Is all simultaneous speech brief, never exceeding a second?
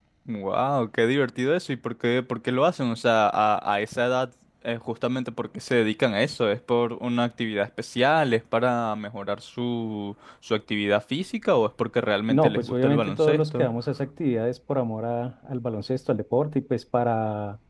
No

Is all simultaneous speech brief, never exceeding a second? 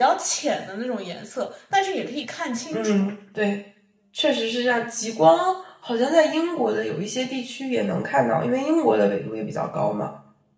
Yes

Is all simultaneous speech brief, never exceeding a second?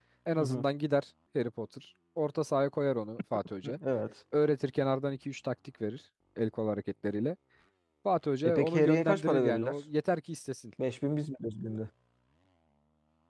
No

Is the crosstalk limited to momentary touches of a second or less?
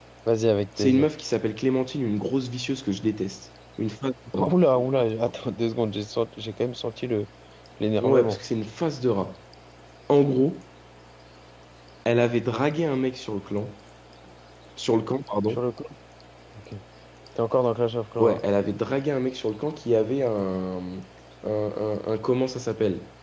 Yes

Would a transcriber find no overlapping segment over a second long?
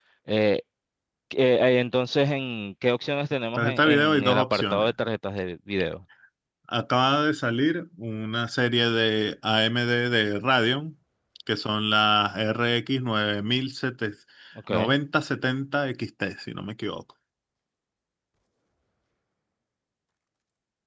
No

